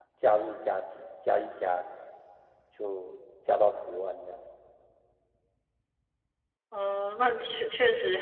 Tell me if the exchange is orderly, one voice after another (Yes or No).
Yes